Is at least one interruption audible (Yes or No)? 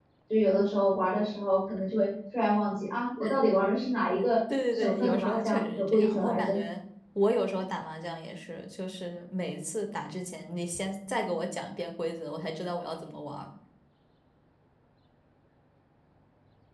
Yes